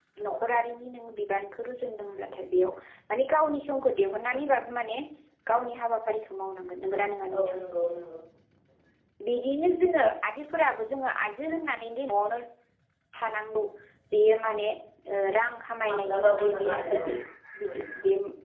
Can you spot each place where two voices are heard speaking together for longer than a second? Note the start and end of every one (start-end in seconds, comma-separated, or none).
15.9-17.1